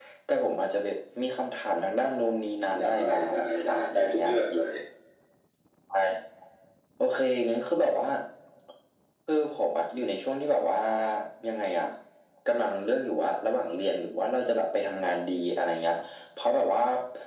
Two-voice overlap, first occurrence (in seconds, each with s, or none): 2.7 s